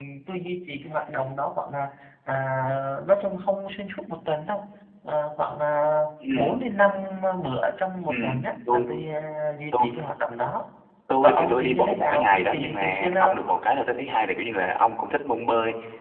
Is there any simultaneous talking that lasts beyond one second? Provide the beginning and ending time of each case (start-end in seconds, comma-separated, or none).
11.2-13.4